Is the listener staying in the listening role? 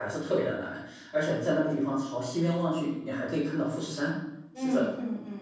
No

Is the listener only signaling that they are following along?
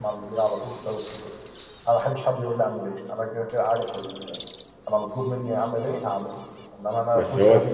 Yes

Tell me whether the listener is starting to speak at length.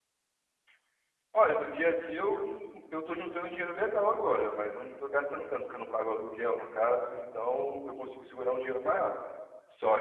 No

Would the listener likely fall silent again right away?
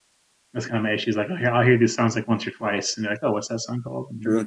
No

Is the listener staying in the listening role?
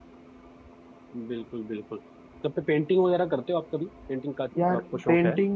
No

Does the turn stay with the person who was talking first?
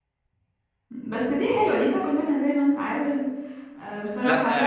No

